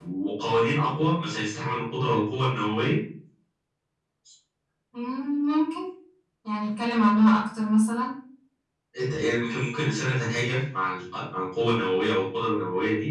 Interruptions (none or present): none